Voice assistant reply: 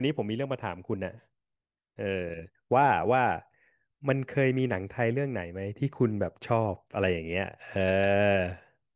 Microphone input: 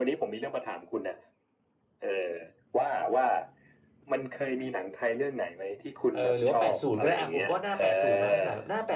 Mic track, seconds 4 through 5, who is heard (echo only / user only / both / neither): echo only